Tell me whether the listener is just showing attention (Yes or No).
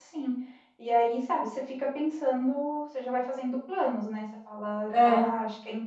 Yes